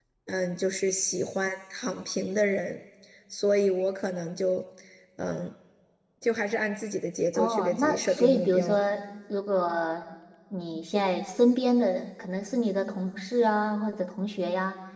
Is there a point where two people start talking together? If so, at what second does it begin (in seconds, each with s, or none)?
7.3 s